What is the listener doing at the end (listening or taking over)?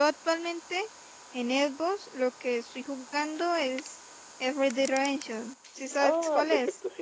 taking over